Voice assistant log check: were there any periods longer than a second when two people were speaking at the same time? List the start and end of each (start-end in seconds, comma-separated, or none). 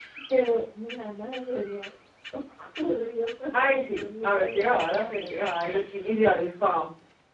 3.5-5.4